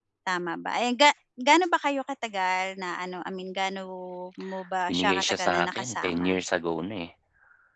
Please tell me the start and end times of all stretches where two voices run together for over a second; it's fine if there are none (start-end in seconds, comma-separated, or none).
4.9-6.4